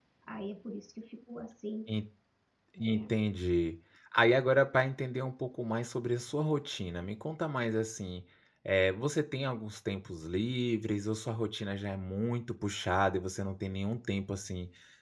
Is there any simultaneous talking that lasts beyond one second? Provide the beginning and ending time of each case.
none

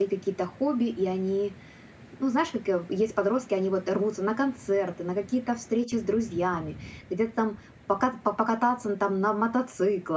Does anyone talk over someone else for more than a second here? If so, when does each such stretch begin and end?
none

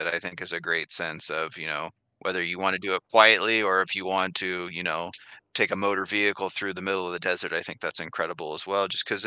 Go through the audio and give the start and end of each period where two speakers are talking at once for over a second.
none

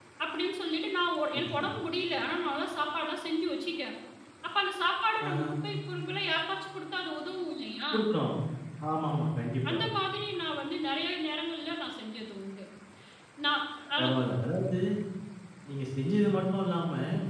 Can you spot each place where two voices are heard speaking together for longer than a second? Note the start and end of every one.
none

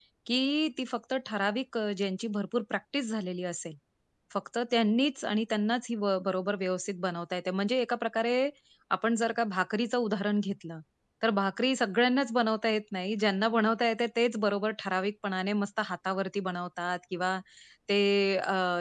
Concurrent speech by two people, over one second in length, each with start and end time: none

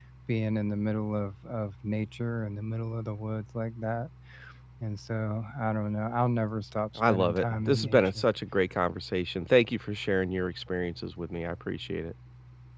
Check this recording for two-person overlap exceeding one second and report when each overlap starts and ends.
7.0-8.3

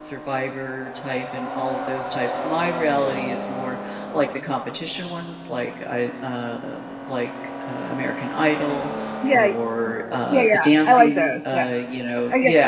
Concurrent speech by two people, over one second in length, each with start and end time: 10.3-11.7

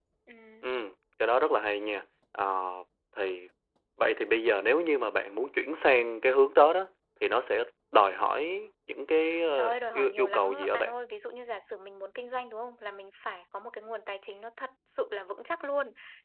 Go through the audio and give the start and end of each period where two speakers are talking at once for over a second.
9.5-10.9

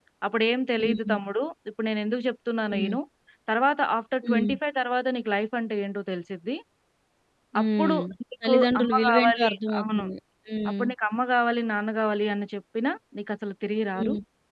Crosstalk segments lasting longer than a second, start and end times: 8.4-10.0

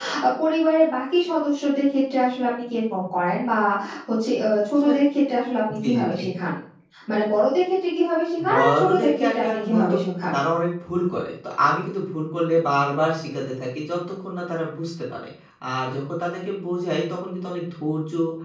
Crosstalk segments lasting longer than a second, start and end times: 8.5-9.9

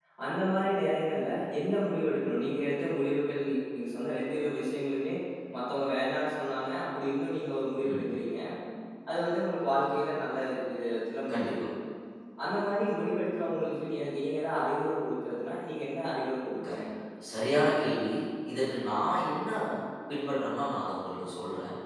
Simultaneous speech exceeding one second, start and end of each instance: none

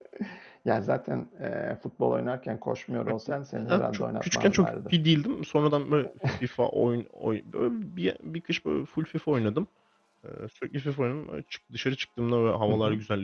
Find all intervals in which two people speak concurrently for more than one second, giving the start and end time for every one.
3.6-5.0

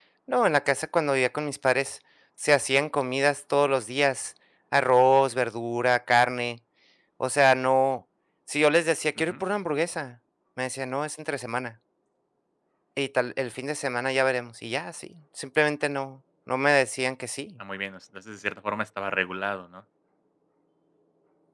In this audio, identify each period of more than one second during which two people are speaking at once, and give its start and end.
none

